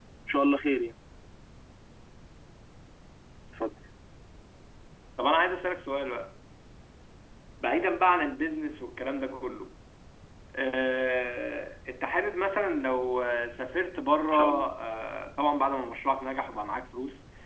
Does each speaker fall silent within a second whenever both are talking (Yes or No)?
Yes